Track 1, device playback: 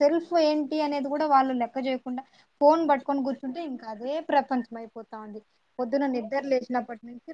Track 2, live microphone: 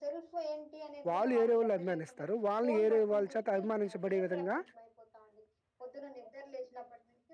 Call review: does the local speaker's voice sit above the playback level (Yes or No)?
Yes